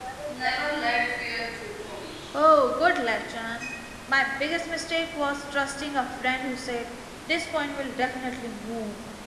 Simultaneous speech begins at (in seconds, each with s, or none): none